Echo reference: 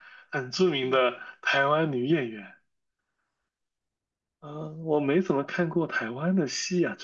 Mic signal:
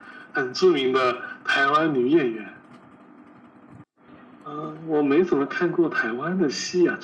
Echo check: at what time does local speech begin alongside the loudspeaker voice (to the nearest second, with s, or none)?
none